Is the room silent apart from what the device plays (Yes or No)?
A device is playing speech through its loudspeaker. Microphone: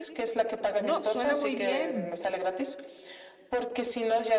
No